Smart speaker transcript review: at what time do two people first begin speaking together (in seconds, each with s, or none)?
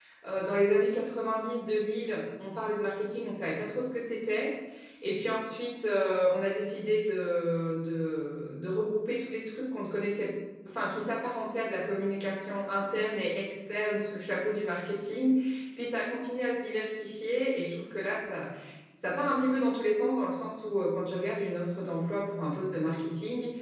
none